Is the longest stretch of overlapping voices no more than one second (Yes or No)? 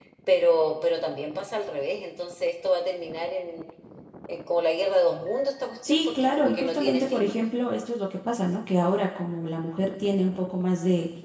No